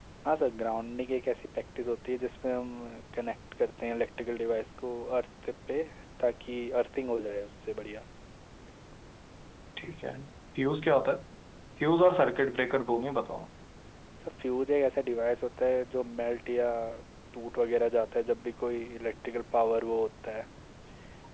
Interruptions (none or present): none